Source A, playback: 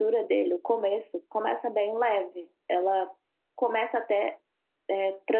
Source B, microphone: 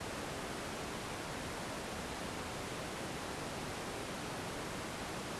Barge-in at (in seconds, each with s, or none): none